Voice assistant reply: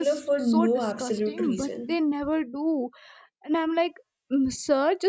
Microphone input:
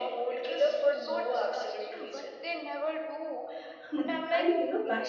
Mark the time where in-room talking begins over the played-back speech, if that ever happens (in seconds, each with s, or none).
3.9 s